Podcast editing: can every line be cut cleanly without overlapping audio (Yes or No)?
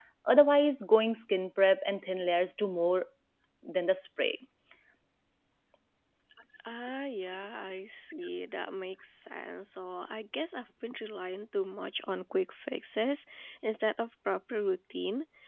Yes